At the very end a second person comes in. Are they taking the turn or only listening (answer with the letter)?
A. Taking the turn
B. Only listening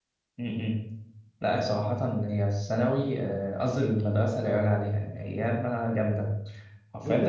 A